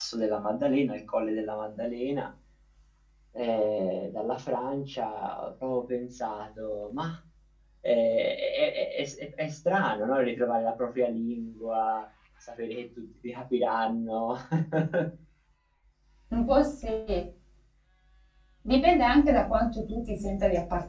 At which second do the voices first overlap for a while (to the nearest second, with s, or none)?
none